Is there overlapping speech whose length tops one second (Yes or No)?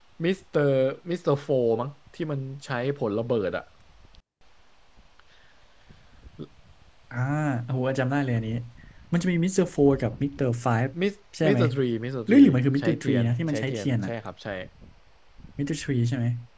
Yes